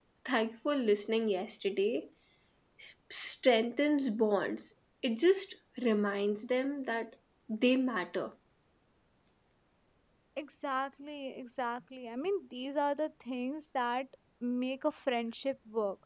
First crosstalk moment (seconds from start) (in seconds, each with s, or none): none